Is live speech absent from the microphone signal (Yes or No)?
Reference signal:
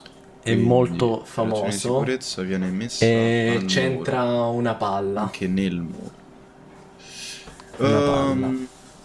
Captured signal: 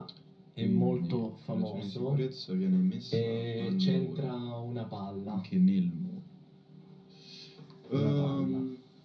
Yes